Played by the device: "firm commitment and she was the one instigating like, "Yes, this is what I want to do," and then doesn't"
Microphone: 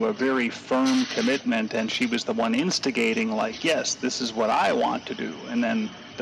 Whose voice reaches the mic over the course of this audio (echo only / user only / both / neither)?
echo only